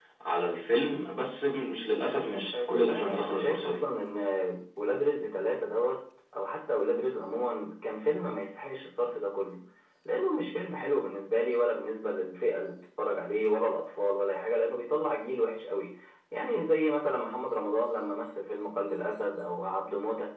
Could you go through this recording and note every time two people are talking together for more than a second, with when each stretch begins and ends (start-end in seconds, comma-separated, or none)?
2.5-3.8